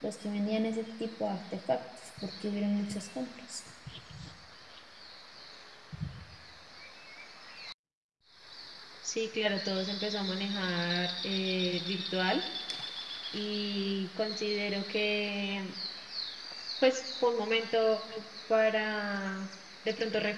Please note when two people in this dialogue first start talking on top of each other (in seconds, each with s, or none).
none